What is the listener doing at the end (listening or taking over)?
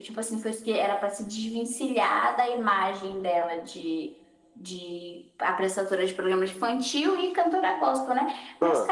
listening